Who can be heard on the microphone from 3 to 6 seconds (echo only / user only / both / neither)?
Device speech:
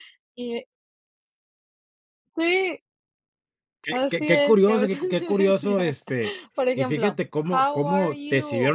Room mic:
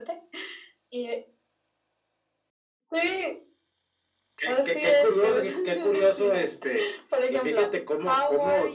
echo only